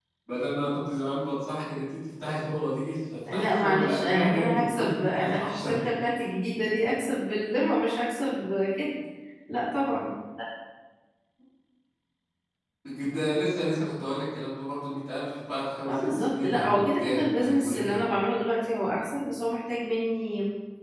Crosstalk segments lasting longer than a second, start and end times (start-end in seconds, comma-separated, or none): 3.3-5.8, 15.9-18.0